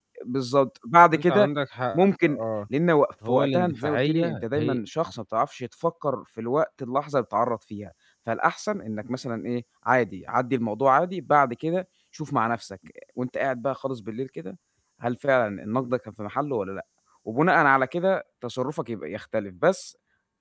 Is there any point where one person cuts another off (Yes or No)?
Yes